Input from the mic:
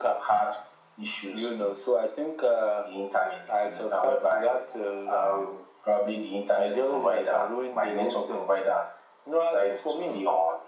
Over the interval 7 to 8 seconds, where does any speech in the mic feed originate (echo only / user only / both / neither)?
echo only